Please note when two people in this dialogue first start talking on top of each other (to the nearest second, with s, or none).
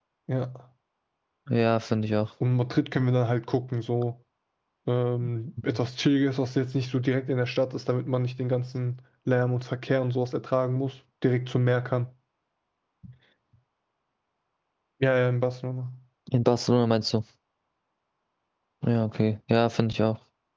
none